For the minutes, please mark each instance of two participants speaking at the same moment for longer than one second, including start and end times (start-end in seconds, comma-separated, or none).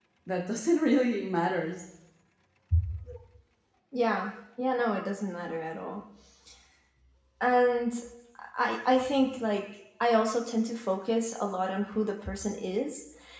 none